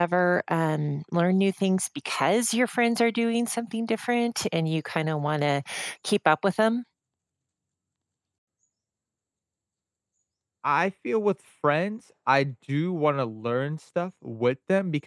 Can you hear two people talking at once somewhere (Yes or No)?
No